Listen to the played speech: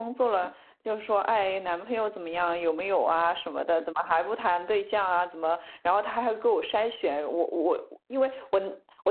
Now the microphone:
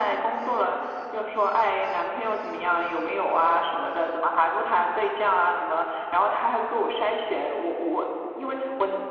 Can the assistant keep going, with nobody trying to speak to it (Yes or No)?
Yes